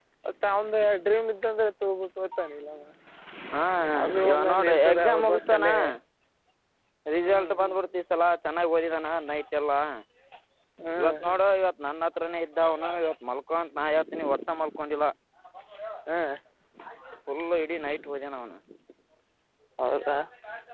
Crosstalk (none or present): present